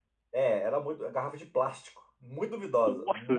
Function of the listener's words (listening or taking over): taking over